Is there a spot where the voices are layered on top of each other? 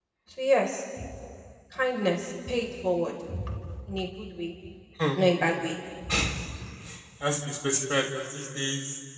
No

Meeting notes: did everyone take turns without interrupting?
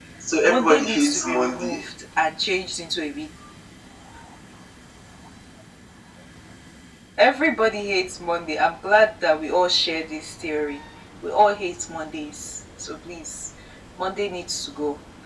No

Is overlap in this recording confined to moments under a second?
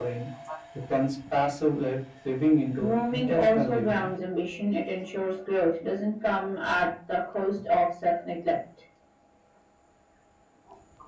No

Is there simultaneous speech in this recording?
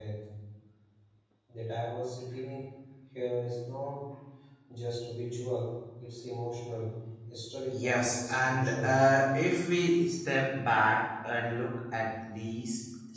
Yes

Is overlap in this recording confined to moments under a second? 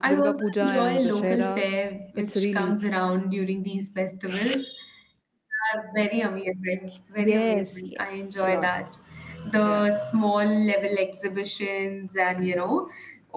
No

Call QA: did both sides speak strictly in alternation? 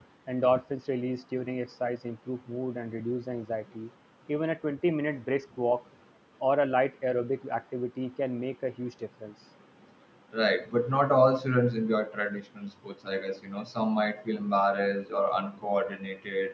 Yes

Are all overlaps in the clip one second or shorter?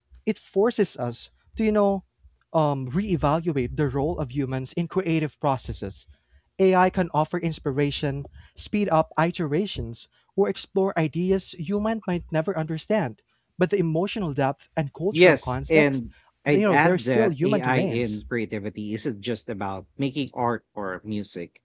No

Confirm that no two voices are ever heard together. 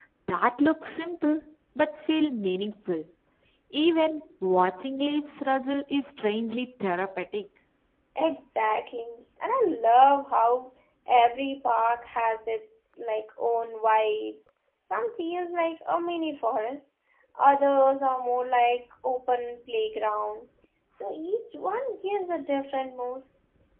Yes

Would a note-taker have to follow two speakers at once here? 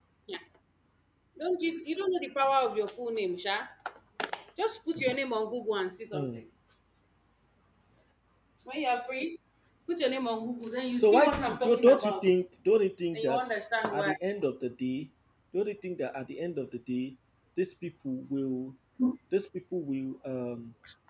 Yes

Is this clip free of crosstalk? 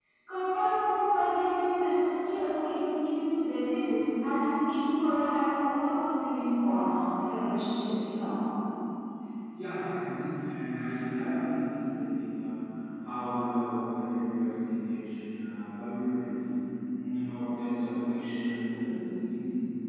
Yes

